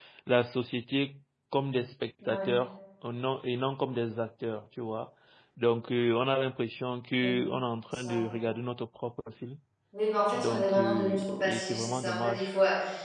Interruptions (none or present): present